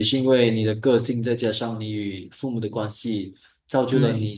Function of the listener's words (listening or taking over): listening